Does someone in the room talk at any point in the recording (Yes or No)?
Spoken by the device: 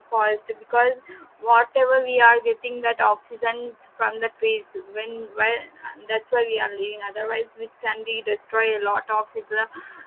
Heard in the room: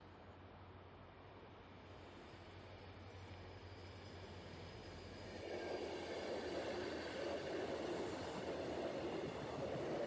No